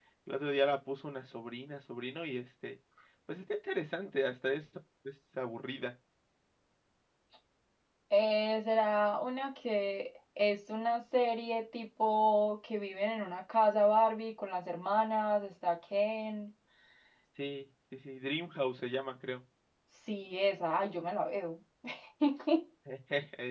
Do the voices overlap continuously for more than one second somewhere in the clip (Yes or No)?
No